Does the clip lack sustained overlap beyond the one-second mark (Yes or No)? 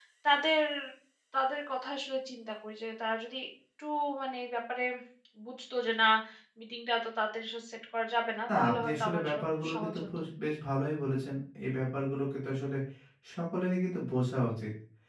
No